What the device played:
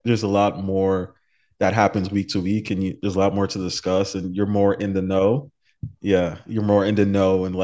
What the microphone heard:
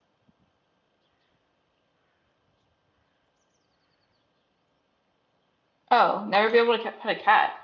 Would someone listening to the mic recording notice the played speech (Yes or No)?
No